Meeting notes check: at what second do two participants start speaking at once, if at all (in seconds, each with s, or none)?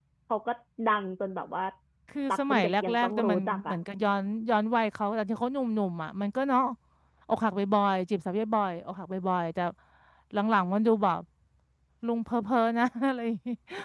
2.3 s